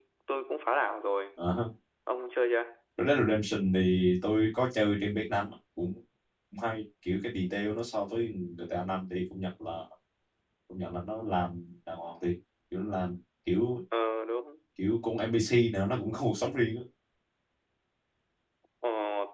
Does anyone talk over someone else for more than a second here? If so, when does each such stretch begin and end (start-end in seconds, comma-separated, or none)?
none